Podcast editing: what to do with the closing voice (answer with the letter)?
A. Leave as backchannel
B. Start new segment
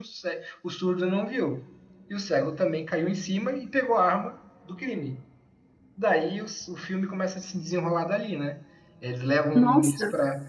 A